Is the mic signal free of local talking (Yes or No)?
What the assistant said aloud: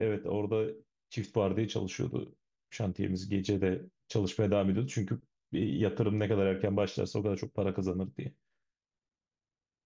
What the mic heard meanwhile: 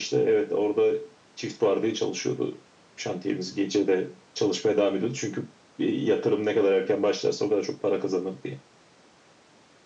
Yes